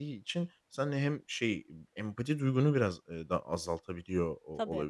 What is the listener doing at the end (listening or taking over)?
listening